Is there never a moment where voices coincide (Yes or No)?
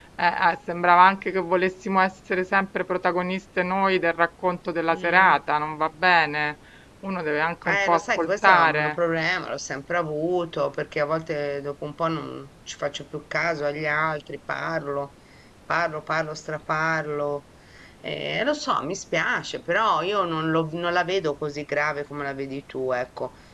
No